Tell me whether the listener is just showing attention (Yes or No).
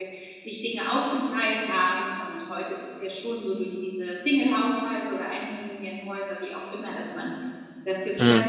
Yes